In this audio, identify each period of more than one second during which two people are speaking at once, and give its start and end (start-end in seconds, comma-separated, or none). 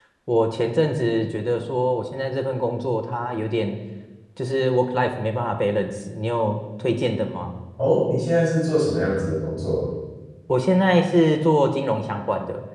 none